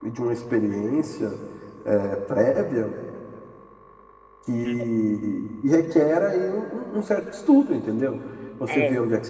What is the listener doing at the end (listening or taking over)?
listening